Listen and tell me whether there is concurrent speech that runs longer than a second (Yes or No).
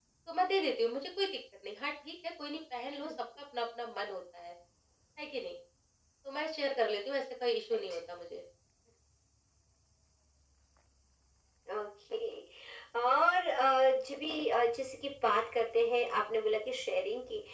No